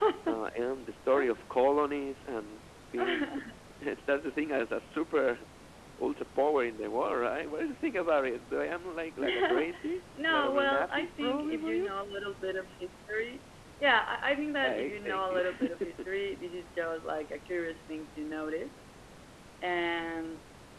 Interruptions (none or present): present